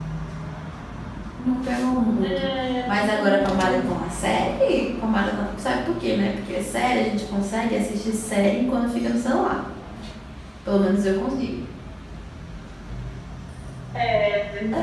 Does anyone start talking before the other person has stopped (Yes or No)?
Yes